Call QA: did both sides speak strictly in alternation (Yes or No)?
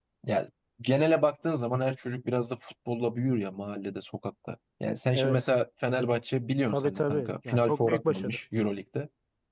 No